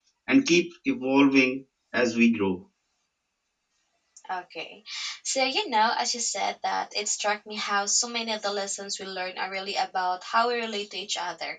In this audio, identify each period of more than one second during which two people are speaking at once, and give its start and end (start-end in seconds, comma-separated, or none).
none